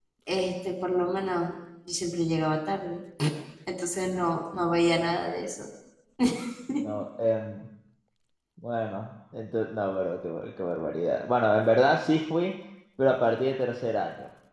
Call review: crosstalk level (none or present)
none